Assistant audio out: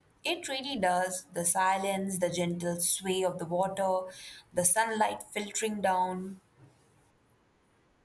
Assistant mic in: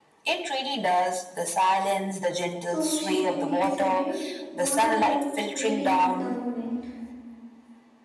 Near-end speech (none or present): present